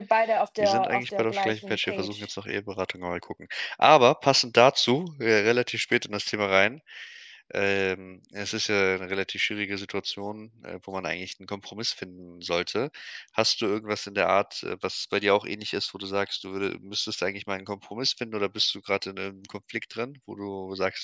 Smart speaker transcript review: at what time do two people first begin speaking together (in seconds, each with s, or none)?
0.6 s